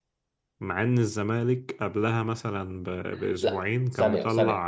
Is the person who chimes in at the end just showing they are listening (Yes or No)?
No